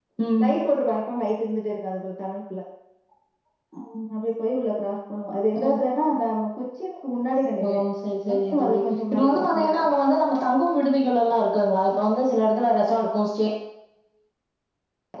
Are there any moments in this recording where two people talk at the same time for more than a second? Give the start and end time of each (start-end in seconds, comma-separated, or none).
8.5-9.8